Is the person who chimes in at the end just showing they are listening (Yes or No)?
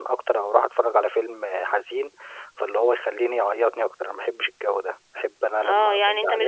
No